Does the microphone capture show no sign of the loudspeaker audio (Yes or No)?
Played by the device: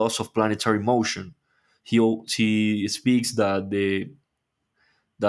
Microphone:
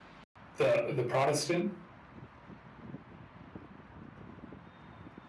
Yes